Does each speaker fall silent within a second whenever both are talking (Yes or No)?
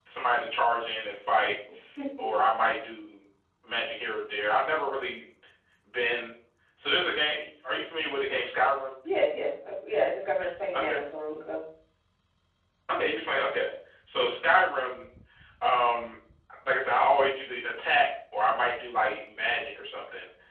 Yes